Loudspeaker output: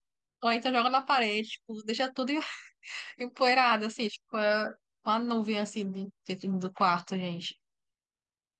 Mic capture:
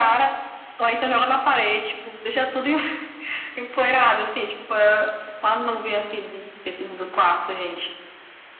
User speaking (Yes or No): No